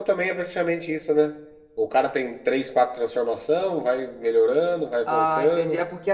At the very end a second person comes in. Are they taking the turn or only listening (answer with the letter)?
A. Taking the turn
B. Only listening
A